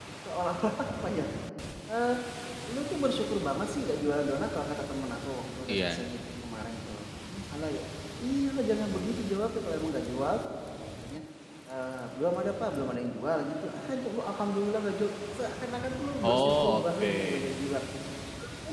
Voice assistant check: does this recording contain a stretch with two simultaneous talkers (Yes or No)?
Yes